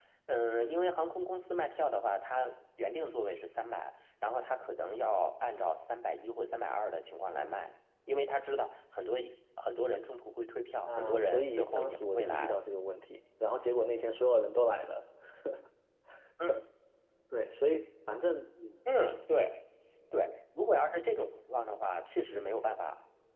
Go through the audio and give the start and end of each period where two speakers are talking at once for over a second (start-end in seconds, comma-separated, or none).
10.9-12.5